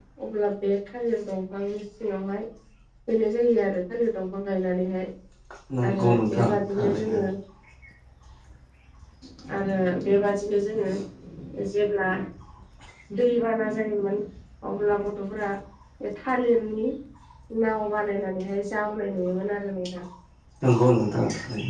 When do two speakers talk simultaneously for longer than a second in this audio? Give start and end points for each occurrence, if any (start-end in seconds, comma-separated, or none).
5.9-7.2